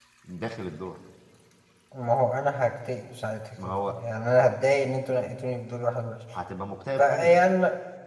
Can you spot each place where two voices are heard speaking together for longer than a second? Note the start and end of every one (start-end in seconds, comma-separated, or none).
none